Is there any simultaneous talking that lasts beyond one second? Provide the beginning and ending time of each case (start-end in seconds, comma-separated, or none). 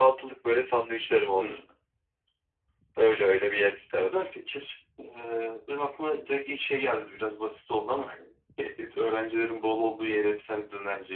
none